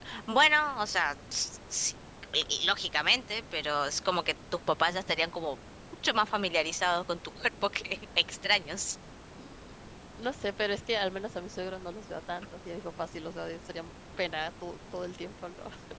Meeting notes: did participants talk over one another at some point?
No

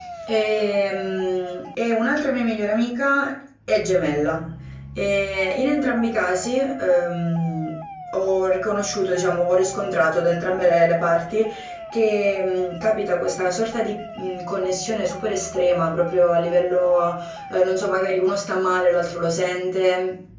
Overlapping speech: No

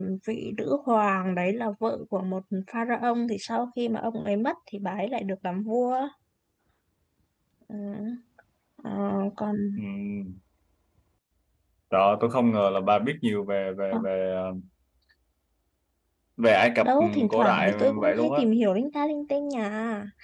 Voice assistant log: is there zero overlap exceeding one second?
No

